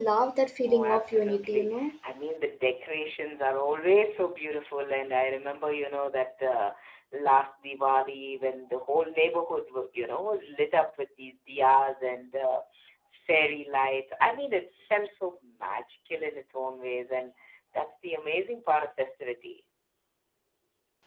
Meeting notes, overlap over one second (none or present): present